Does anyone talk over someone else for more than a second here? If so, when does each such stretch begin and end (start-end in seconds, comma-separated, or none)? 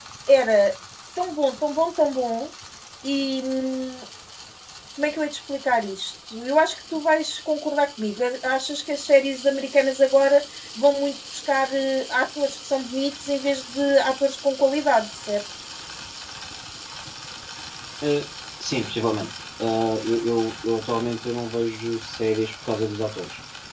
none